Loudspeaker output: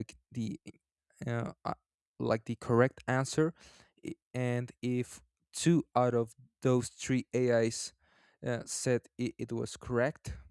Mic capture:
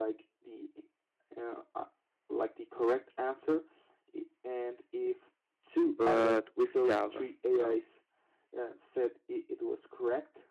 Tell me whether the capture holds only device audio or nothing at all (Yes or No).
No